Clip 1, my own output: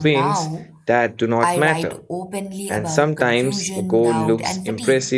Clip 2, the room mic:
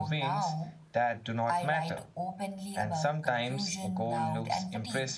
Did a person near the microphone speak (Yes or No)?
No